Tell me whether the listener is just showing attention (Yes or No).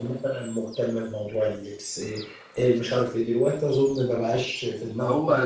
No